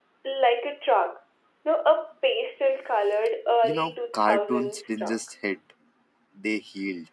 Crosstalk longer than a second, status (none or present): present